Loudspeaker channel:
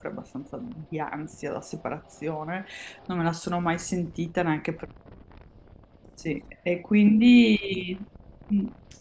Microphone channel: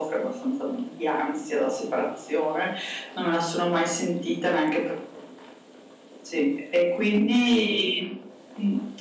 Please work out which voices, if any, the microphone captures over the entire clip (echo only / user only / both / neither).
echo only